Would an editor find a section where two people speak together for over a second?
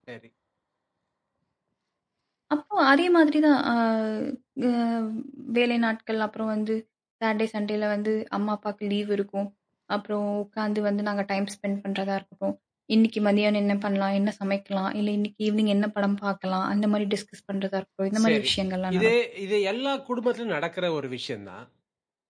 No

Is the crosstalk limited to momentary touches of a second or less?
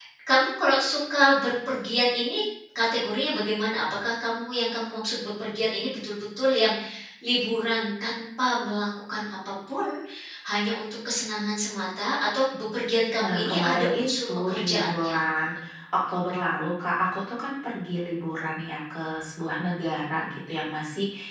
No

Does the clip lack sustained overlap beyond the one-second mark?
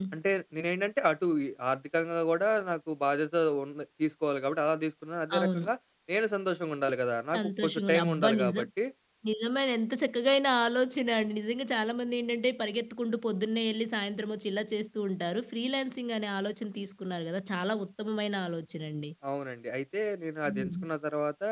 No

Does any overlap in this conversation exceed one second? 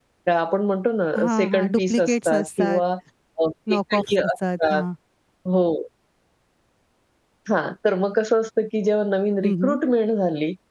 Yes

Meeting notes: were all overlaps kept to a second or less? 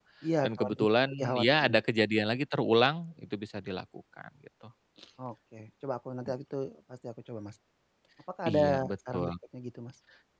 No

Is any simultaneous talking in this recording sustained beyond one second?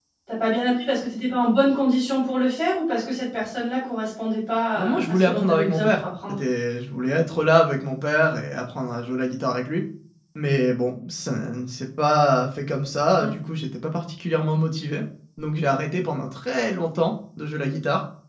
Yes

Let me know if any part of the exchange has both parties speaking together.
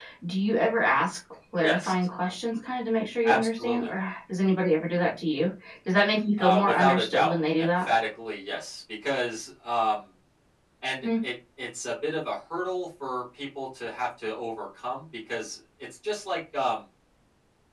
Yes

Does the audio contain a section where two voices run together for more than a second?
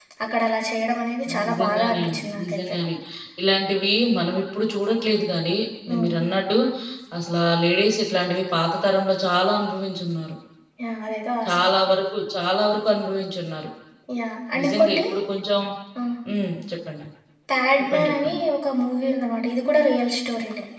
Yes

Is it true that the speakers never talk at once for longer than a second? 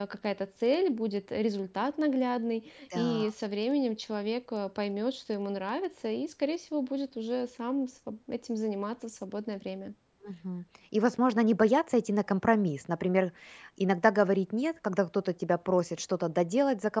Yes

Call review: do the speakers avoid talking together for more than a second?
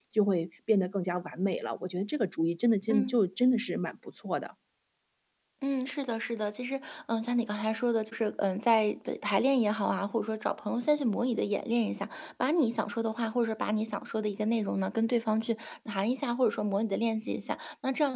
Yes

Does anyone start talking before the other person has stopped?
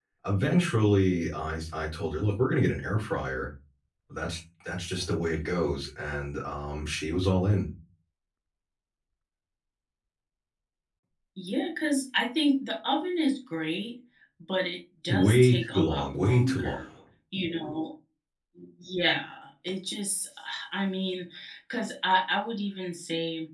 Yes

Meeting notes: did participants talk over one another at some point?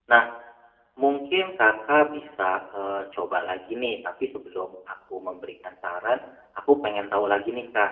No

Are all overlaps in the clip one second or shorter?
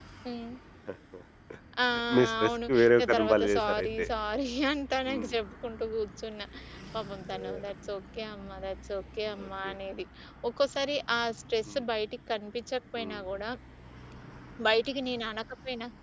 No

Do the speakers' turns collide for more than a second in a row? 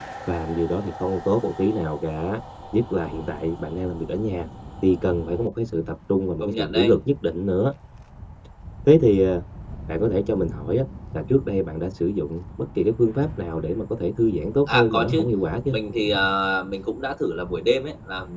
No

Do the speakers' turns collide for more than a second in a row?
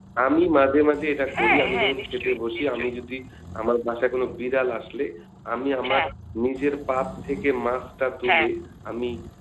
Yes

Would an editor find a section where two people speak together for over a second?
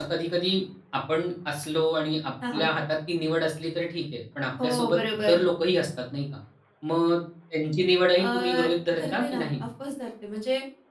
Yes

